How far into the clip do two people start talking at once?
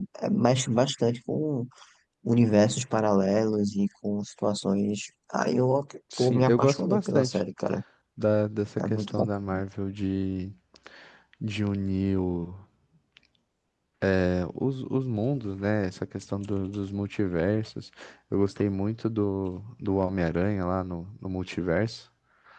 6.2 s

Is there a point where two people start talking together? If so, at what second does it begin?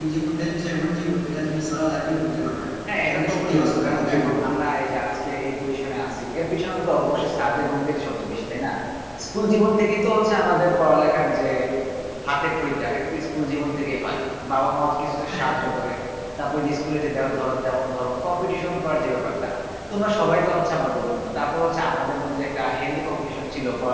3.0 s

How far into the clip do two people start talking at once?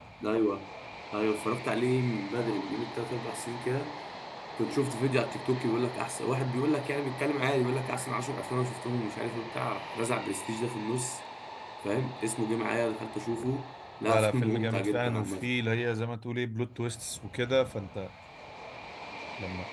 14.0 s

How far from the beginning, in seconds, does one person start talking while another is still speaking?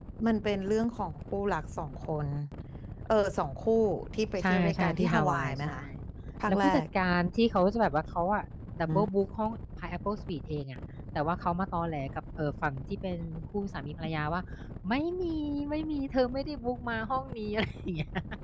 4.4 s

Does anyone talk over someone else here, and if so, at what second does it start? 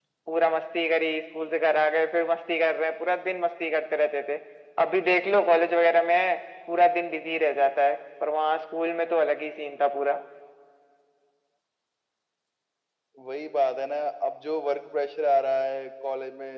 none

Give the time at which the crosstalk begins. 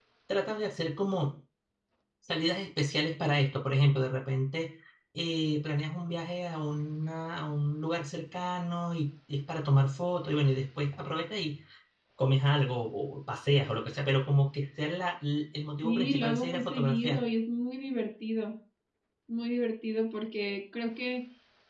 15.8 s

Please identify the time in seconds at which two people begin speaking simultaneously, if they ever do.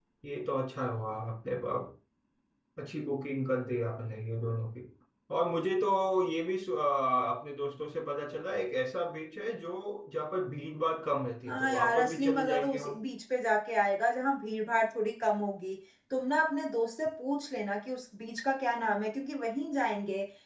11.5 s

